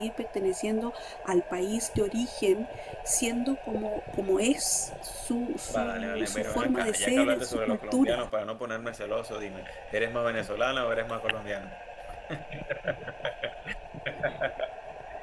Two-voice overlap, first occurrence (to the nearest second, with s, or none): 6 s